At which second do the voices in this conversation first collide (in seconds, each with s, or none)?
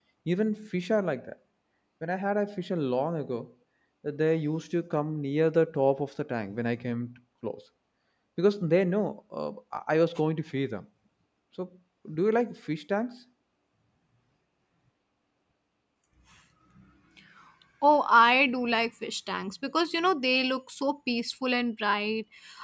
none